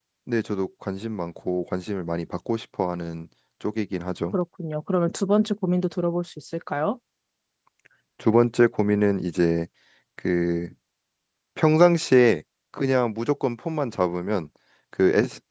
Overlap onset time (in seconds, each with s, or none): none